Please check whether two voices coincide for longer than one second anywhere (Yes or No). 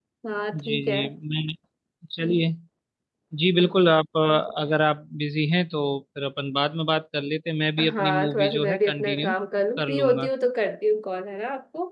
Yes